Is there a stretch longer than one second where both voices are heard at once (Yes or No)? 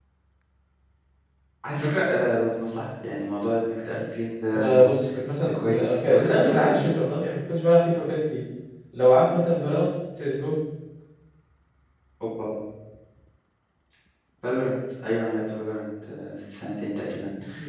Yes